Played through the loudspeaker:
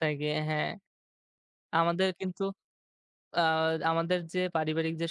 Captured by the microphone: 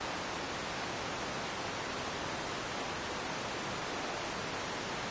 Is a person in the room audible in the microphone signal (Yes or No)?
No